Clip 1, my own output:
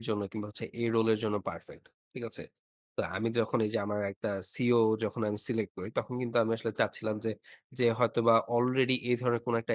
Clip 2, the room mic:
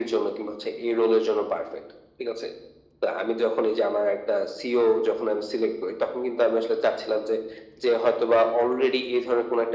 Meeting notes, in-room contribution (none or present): none